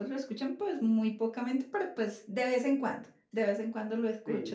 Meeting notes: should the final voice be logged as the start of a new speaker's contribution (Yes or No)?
Yes